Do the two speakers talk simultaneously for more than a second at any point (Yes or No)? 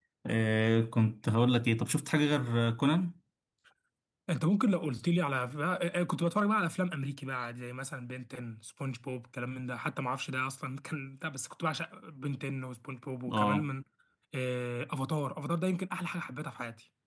No